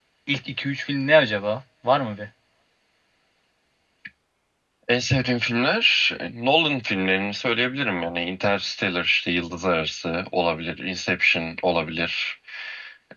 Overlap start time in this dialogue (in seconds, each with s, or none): none